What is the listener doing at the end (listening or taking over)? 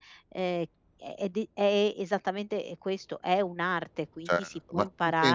taking over